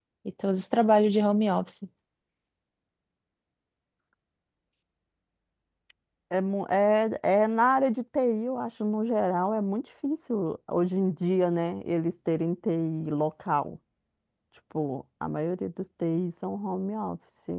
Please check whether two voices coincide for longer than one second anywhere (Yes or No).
No